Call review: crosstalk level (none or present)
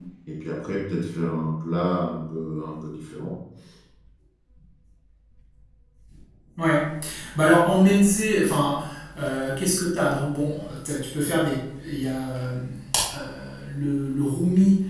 none